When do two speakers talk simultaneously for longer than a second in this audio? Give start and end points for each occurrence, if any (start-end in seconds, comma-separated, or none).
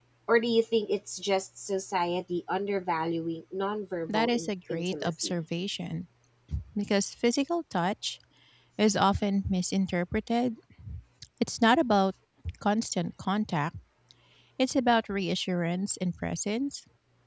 4.1-5.3